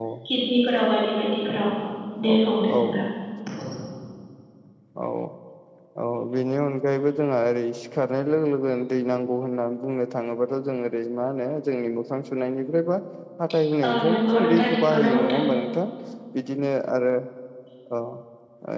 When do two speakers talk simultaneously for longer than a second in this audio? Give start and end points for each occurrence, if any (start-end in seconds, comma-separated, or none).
13.9-15.4